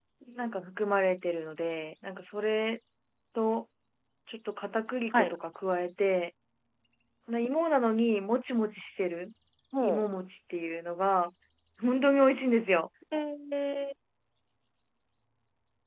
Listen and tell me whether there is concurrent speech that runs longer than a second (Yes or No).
No